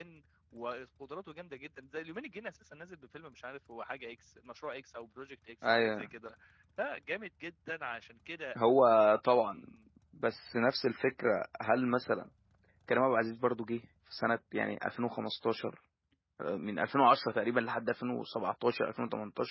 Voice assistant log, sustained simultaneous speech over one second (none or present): none